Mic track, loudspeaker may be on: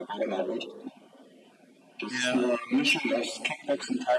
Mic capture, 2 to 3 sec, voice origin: both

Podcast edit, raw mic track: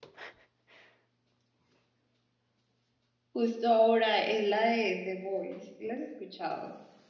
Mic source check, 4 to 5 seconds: user only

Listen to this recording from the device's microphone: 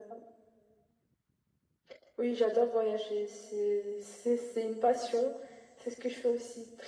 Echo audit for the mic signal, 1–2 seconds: neither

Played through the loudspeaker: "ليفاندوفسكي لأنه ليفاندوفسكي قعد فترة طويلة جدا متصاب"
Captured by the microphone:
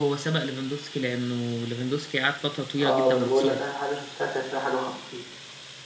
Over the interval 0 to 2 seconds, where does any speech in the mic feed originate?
echo only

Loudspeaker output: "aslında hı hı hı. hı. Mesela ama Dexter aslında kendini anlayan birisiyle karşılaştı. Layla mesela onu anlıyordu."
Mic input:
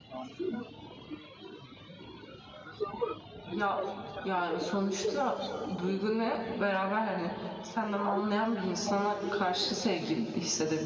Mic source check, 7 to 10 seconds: both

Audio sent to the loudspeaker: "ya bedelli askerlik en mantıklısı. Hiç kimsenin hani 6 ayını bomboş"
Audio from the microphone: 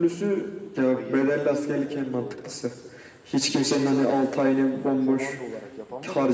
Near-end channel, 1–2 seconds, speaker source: both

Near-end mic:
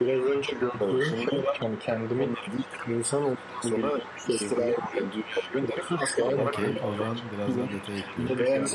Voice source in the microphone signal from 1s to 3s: echo only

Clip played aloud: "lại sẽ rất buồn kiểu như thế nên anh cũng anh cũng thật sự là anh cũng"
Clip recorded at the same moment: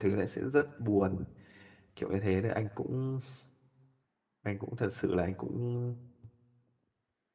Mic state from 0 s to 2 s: echo only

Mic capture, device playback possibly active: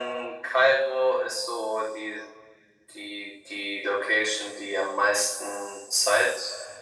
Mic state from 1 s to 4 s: echo only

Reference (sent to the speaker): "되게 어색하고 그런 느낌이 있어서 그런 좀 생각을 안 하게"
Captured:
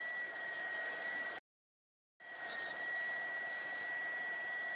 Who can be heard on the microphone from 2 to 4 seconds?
neither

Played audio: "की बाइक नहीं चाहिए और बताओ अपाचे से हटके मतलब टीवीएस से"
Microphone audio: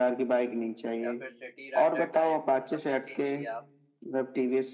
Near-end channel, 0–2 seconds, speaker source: both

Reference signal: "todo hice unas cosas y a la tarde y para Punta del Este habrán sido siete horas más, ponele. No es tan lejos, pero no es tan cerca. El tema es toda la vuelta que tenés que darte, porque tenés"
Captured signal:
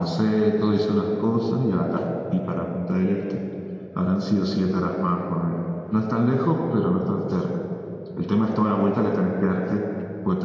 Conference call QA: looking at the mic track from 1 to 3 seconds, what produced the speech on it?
echo only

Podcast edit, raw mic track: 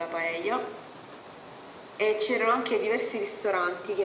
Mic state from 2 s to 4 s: echo only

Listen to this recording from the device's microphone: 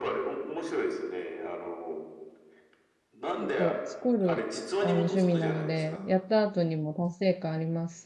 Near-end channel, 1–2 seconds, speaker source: echo only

